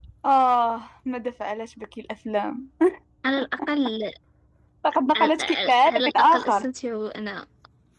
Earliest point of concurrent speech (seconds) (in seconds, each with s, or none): 5.2 s